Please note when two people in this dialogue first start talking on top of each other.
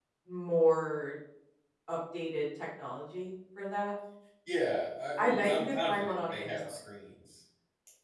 5.2 s

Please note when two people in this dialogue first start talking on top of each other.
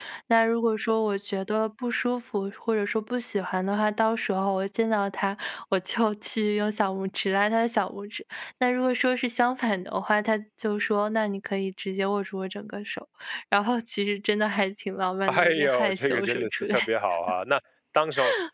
15.3 s

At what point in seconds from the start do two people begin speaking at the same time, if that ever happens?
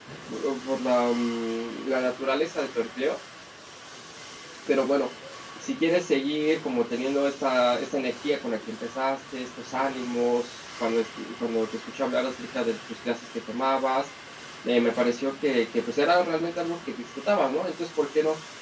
none

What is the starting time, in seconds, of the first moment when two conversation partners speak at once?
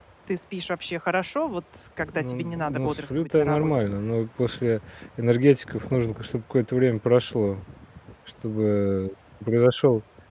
2.1 s

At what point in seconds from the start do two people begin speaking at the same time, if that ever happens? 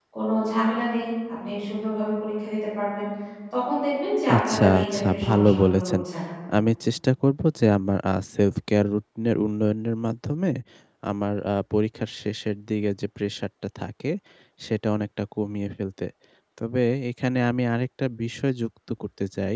4.3 s

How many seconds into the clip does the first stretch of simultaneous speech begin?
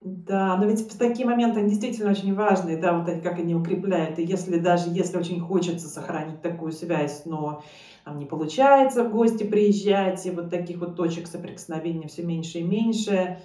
none

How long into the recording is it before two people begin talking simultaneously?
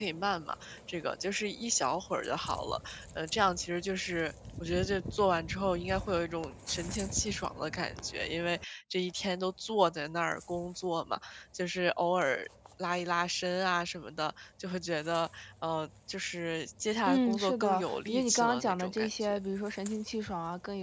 17.1 s

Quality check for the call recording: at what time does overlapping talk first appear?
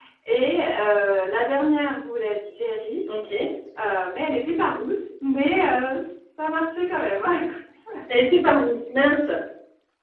none

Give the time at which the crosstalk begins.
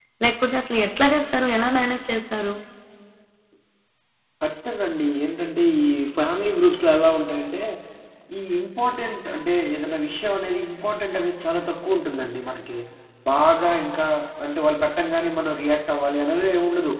none

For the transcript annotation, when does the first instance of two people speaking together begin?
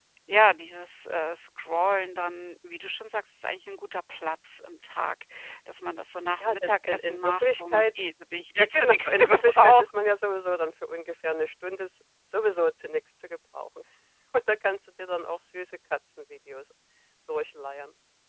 6.4 s

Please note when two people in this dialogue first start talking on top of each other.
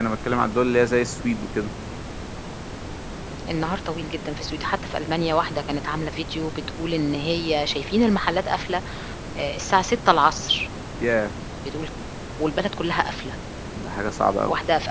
none

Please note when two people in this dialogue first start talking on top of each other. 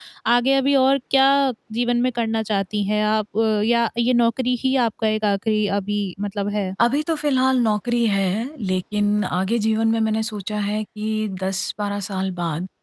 none

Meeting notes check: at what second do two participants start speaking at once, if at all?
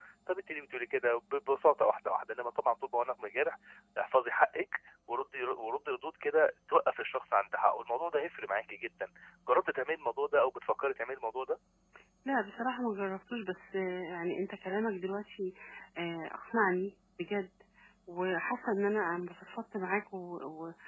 none

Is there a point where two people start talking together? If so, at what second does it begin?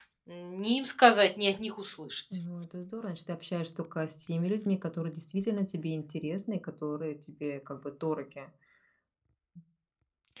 none

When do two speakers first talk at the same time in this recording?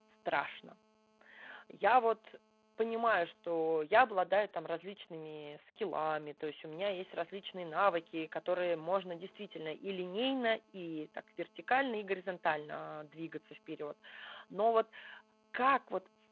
none

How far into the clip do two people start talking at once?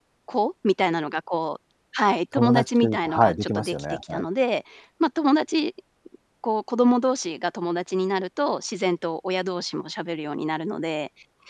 2.4 s

